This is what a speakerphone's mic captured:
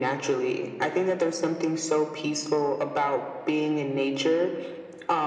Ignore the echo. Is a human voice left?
No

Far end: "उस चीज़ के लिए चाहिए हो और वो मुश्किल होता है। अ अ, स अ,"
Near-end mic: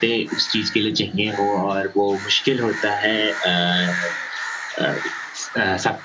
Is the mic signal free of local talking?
Yes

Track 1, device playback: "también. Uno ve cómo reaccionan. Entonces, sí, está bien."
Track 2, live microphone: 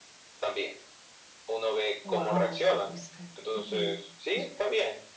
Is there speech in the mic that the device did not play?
Yes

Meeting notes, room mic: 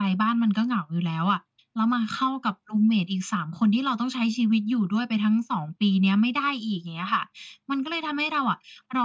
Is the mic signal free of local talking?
Yes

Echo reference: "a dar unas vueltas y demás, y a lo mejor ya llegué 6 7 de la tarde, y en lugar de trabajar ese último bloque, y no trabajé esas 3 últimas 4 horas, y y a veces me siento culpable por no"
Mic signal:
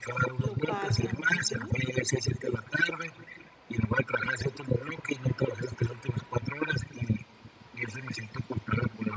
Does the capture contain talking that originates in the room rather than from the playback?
Yes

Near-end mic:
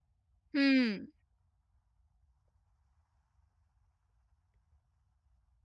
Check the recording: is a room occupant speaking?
Yes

